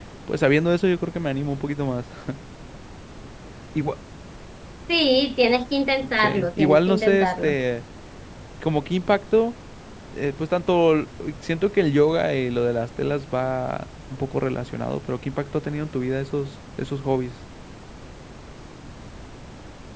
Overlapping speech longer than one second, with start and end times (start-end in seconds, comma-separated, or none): 6.2-7.5